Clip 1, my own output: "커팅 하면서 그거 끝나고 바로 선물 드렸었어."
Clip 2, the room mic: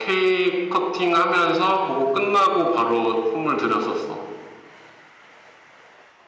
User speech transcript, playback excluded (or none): none